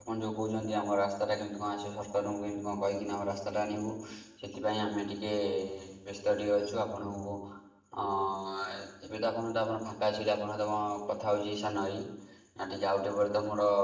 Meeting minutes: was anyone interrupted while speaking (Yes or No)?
No